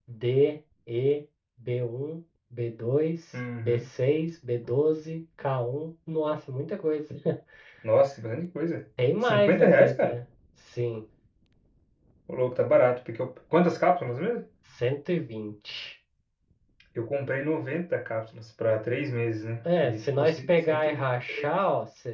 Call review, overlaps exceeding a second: present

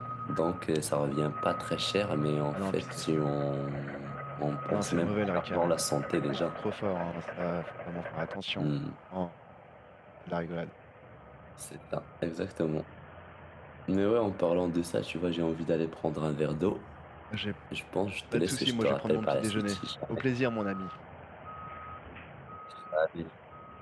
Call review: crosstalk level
present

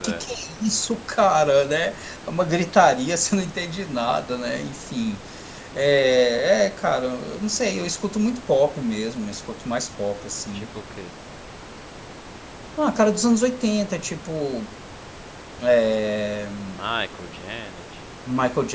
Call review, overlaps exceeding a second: none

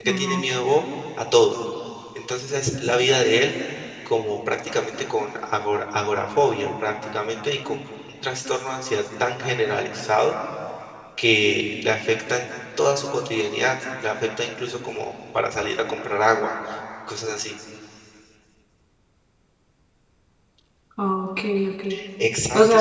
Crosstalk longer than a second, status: none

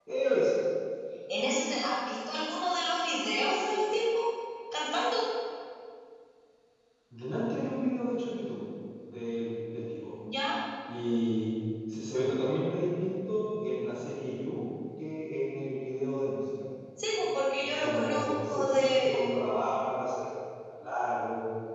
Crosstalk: present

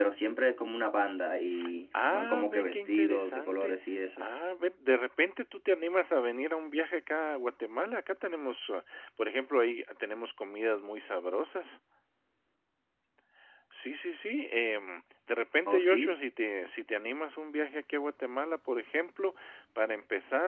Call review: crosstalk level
present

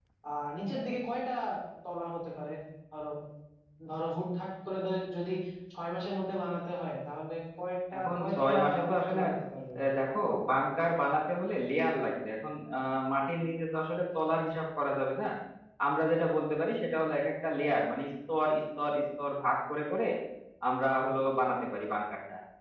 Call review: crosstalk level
present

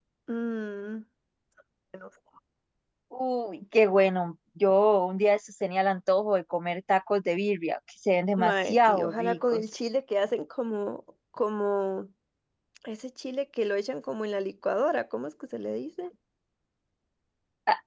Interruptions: present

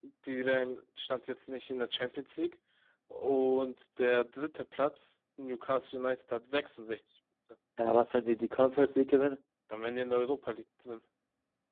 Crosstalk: none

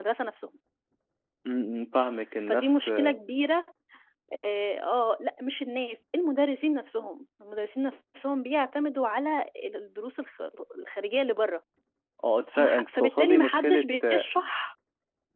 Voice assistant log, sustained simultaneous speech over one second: present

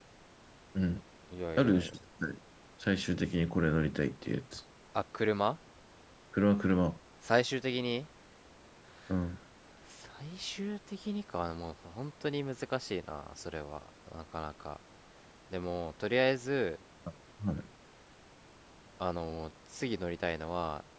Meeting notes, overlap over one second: none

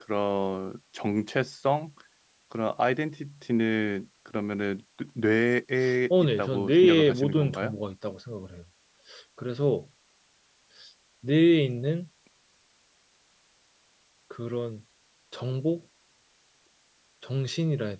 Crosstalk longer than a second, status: present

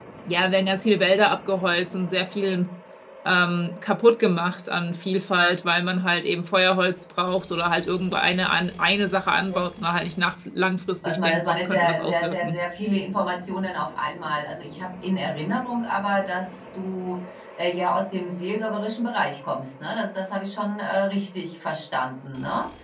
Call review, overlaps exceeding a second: present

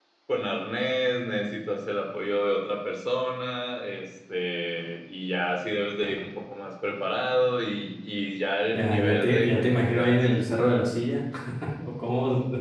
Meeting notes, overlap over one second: present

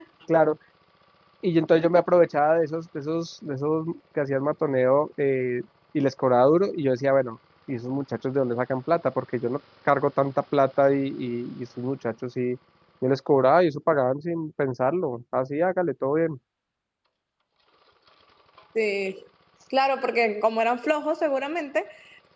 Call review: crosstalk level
none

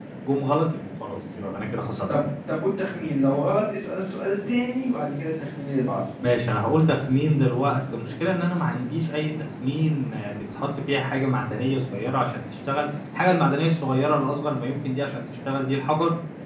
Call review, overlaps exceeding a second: none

